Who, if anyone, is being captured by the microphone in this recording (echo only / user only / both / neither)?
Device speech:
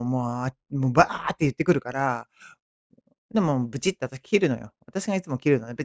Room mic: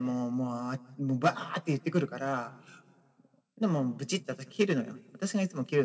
echo only